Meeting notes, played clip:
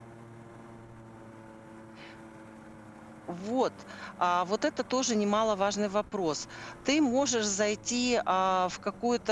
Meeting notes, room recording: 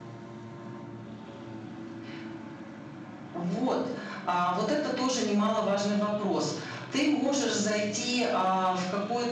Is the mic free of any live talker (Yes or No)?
Yes